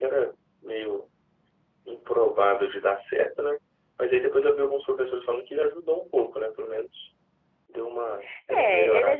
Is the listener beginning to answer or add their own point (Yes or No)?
Yes